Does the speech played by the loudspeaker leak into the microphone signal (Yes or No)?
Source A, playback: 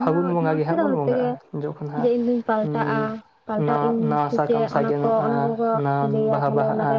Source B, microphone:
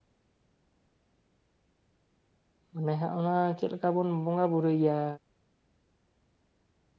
No